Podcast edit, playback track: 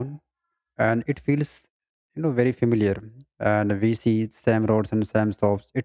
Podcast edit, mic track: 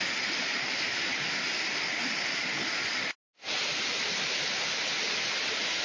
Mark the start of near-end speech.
none

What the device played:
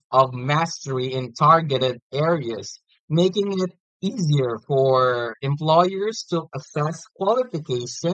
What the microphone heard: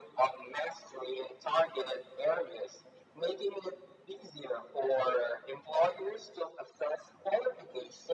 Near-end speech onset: none

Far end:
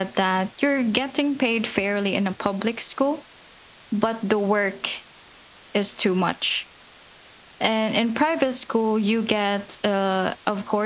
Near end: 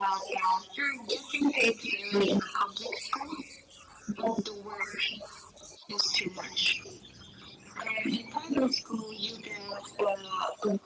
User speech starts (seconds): none

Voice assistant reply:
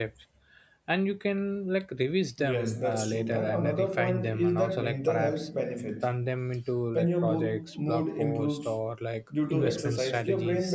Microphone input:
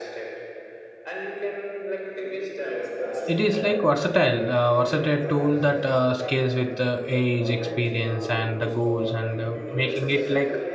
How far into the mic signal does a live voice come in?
3.3 s

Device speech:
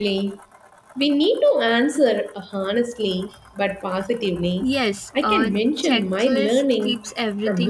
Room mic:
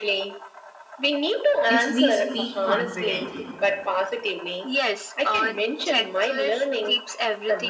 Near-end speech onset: 1.6 s

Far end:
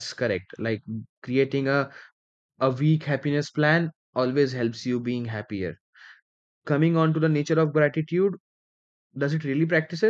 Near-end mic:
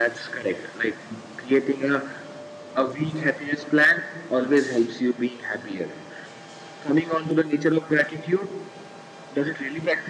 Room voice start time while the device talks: none

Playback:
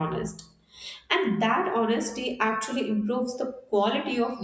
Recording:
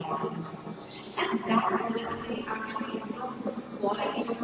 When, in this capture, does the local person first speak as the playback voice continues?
none

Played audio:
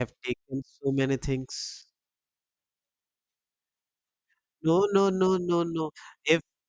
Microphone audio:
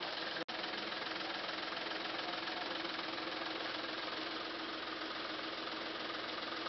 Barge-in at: none

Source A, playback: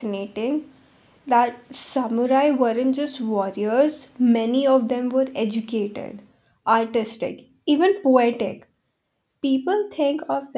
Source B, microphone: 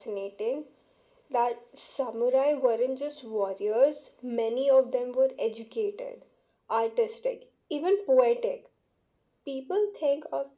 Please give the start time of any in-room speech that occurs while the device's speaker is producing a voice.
none

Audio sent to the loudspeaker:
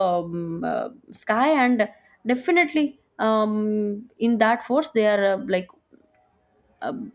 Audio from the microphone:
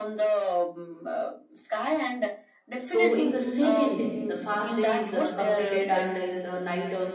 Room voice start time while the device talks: 2.8 s

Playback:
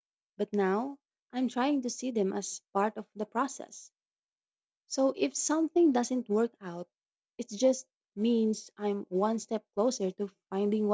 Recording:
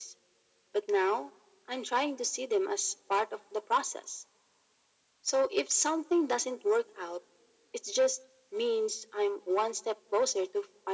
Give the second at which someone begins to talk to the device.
none

